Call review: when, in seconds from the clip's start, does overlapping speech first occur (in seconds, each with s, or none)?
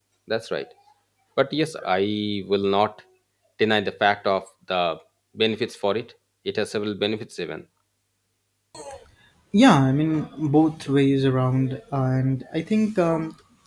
none